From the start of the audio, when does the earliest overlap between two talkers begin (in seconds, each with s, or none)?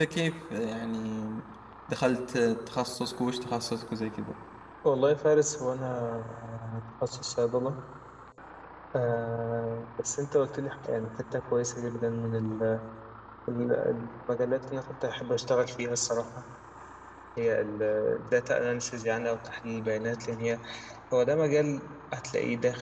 none